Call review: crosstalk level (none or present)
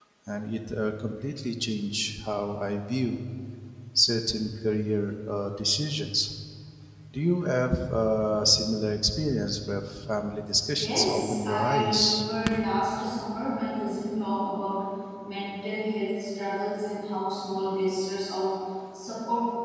present